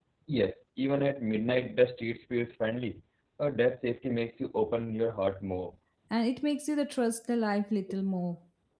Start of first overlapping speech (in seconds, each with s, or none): none